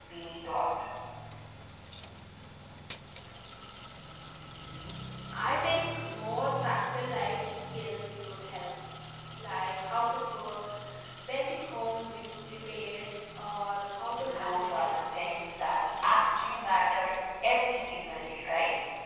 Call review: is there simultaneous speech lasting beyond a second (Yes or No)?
Yes